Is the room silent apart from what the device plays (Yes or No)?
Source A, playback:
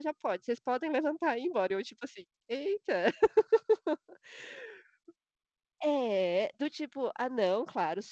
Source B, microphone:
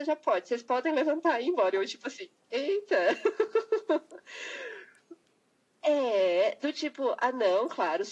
Yes